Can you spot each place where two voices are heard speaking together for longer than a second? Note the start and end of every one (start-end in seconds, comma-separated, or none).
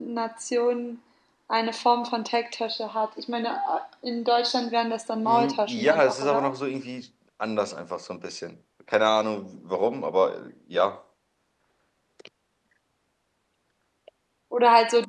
5.2-6.5